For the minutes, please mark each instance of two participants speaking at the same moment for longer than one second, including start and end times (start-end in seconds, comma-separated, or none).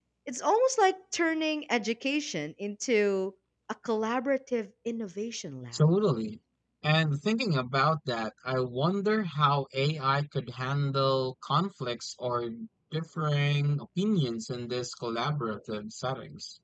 none